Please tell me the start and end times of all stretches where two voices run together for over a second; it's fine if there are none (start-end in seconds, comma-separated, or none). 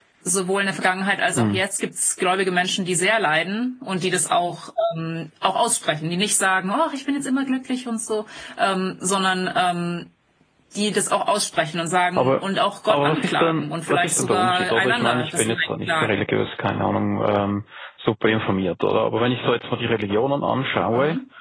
12.9-16.2